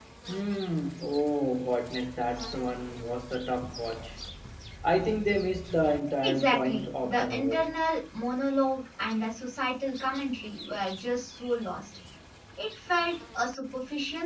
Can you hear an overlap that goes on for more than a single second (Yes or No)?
Yes